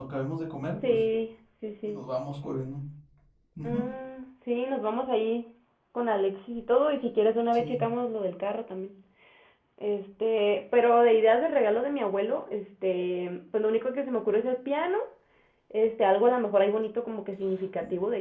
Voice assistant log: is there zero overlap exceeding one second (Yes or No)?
Yes